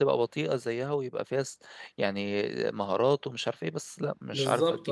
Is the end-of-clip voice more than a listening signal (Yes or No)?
Yes